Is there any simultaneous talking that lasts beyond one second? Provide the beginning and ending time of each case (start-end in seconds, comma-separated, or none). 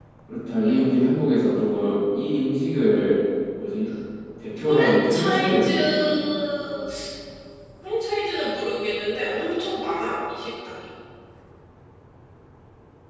4.7-6.1